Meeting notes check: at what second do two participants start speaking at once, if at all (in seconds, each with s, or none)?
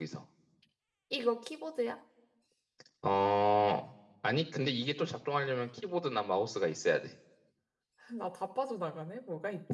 none